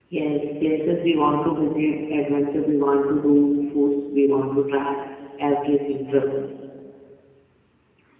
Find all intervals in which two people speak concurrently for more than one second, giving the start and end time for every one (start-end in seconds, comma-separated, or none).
none